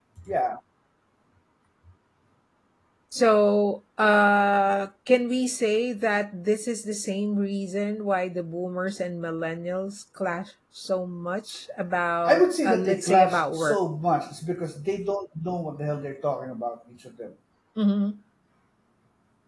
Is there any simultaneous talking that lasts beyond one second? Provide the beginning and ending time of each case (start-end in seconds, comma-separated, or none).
12.3-13.8